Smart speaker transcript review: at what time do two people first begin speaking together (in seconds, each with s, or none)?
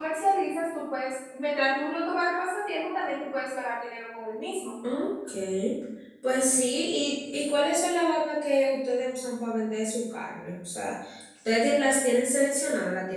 none